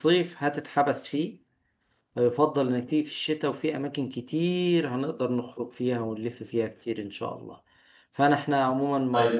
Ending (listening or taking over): listening